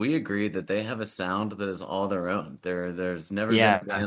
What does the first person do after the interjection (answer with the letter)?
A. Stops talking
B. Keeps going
B